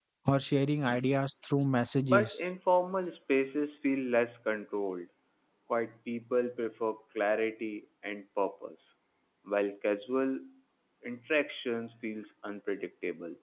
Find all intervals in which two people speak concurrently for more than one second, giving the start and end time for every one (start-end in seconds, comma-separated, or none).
none